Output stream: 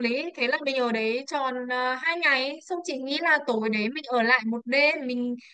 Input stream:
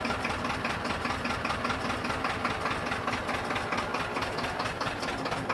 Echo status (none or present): none